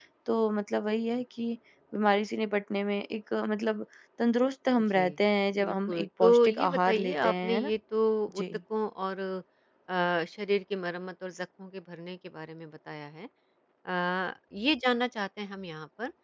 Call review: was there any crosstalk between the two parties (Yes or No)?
Yes